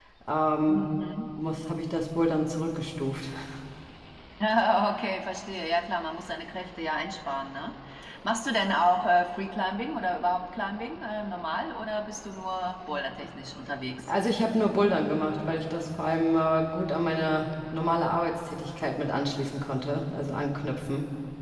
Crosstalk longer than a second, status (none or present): none